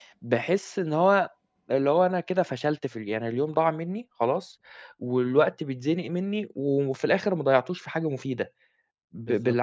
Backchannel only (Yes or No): No